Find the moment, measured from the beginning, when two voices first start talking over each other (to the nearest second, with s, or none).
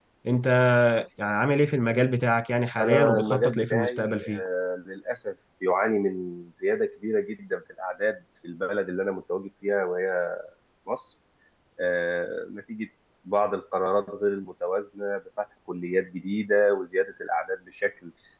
3 s